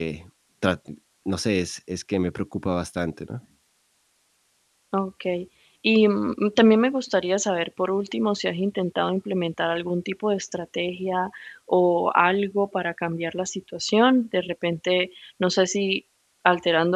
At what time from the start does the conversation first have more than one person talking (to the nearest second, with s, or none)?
none